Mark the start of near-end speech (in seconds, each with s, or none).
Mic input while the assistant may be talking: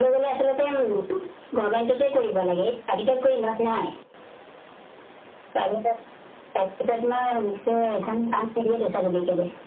none